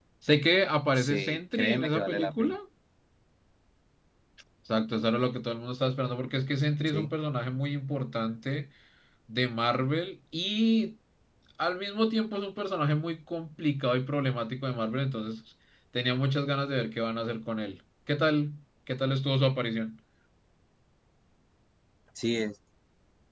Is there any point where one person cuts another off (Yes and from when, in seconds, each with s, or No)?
Yes, from 0.9 s